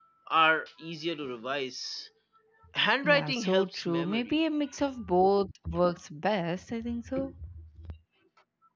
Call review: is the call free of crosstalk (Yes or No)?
No